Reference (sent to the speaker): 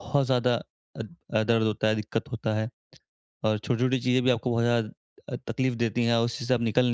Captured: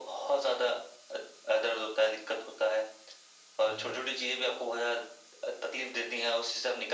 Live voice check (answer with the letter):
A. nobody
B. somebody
B